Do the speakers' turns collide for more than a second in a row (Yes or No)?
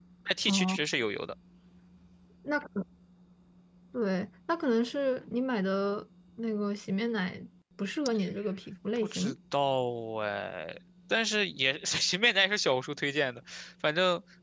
No